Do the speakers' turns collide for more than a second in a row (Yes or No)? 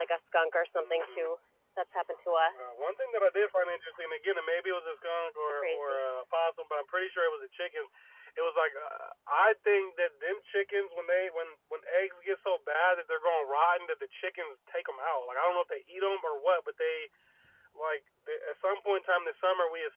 No